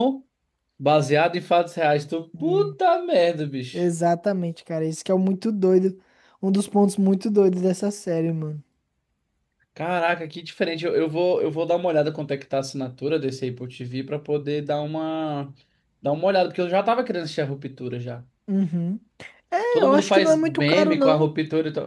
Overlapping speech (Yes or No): Yes